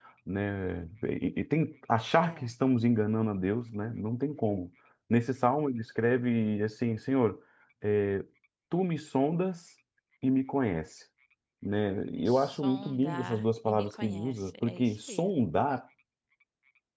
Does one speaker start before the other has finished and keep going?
Yes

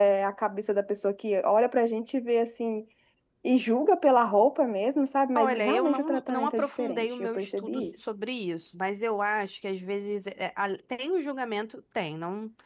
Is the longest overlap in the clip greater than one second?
Yes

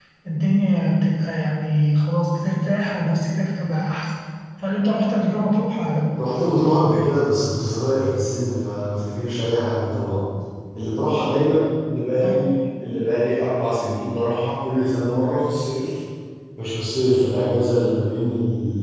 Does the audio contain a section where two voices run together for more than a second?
No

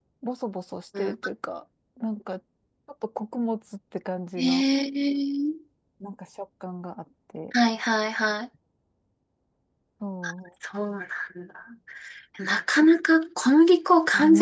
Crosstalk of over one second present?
No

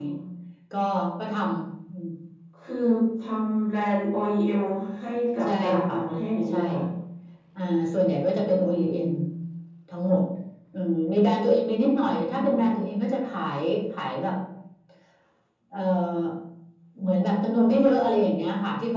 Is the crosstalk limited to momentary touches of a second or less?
Yes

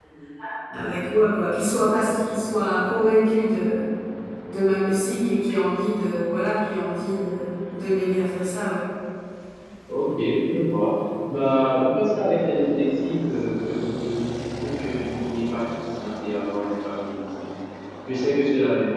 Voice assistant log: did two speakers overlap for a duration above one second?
No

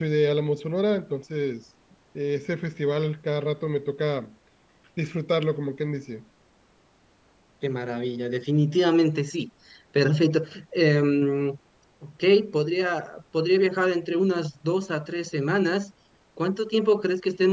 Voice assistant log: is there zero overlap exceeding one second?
Yes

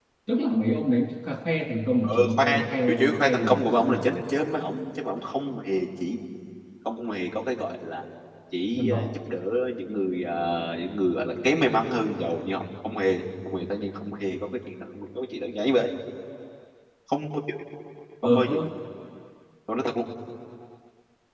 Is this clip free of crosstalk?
No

